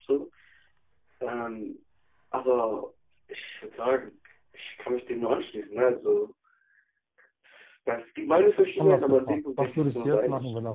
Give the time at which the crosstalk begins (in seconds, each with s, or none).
8.8 s